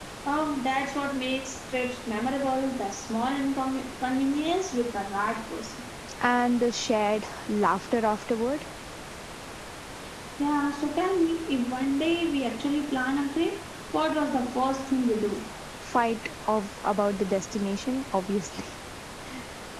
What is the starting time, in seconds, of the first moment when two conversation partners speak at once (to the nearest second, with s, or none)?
none